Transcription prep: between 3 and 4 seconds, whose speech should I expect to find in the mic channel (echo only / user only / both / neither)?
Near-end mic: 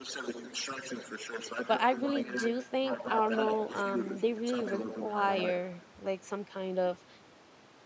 both